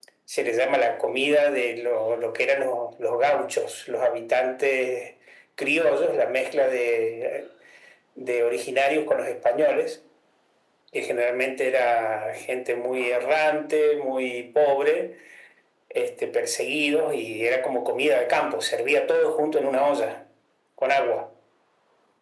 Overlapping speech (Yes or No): No